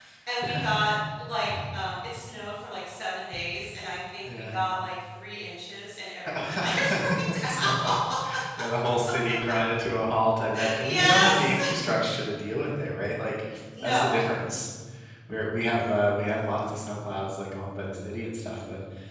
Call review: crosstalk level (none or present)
present